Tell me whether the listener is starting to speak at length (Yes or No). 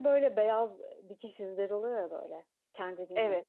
No